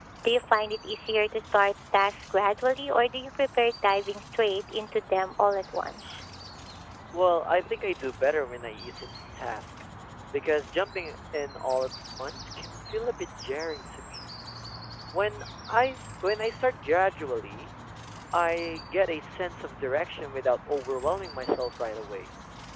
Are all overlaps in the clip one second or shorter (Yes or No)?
Yes